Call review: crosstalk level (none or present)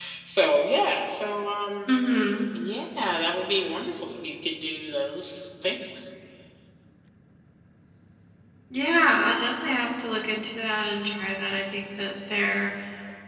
none